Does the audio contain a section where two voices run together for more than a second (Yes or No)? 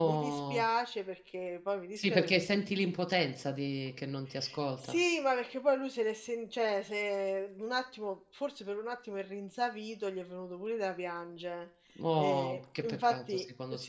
Yes